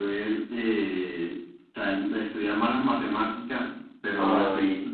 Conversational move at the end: listening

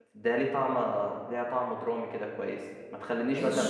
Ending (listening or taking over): taking over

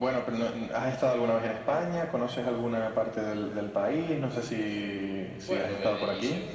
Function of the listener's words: taking over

